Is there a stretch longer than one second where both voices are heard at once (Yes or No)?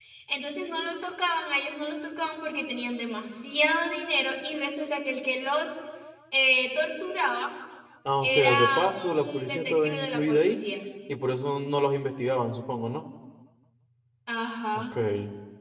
Yes